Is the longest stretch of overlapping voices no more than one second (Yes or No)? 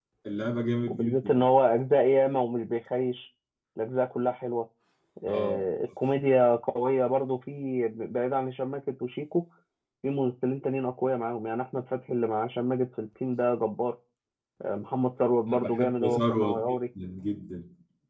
No